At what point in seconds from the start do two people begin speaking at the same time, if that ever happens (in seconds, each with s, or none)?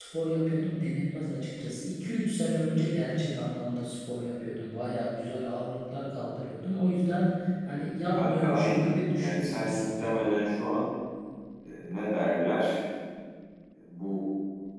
8.1 s